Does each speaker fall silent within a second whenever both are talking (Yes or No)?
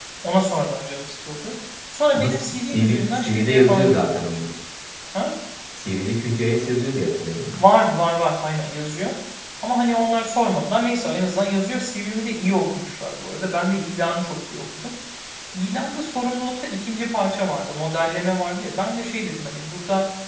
No